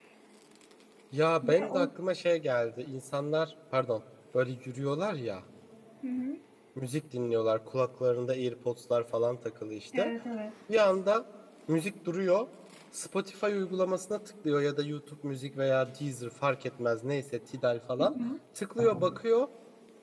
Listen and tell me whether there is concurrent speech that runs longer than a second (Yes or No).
No